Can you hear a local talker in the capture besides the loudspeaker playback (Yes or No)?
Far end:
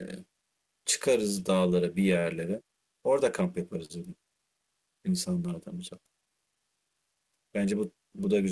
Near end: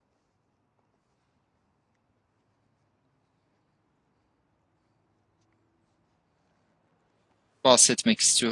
Yes